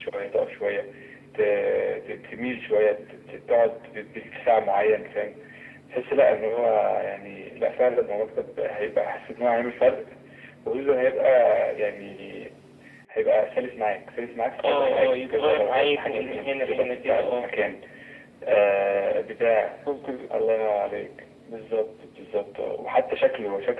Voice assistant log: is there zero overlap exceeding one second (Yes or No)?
No